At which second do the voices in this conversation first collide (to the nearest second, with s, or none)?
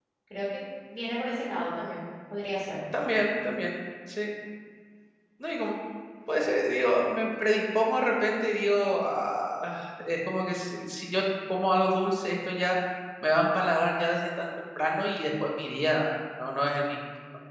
none